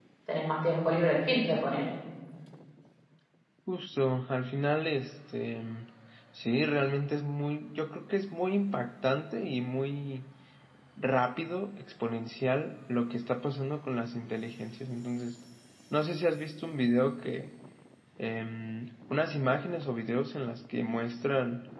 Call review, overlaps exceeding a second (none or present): none